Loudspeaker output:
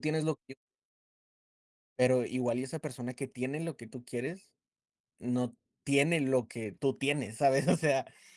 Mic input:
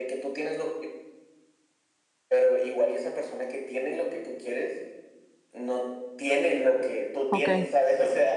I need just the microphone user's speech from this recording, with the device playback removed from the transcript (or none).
Okey.